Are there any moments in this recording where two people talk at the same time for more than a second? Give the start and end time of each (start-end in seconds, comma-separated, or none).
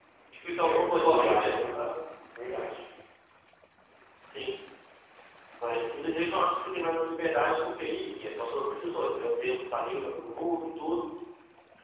0.6-1.9